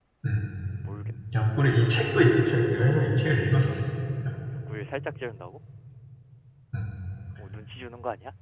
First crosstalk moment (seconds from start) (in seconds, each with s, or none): none